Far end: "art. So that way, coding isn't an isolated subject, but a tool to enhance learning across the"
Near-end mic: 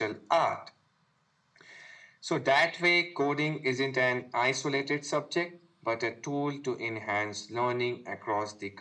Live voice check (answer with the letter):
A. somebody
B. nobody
B